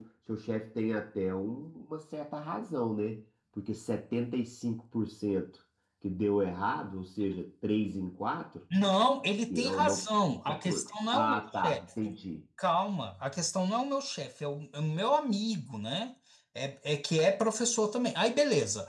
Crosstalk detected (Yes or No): Yes